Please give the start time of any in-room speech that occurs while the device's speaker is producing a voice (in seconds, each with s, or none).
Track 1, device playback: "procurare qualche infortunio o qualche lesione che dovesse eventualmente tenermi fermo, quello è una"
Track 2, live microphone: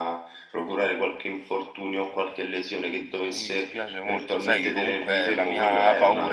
3.2 s